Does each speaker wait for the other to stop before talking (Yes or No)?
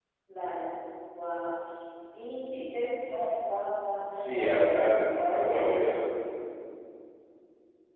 No